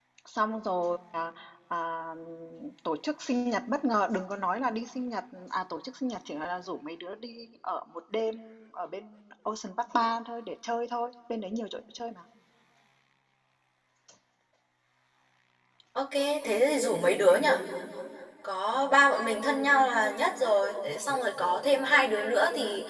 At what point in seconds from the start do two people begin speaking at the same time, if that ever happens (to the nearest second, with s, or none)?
none